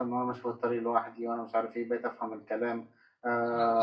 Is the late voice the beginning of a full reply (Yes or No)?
Yes